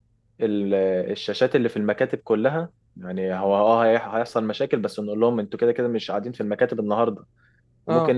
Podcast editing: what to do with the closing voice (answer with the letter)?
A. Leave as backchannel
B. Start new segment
A